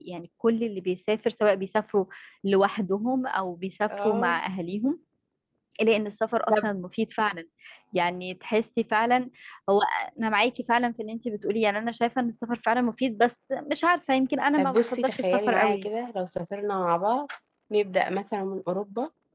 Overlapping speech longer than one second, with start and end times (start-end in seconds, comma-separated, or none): 14.6-15.9